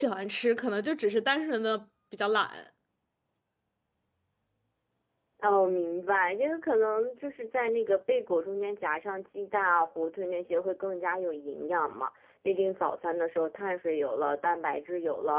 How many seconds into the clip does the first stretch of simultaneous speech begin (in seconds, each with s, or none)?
none